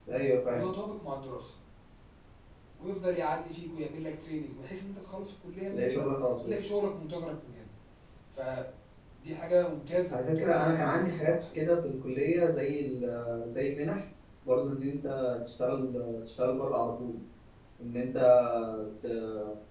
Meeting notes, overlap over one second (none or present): present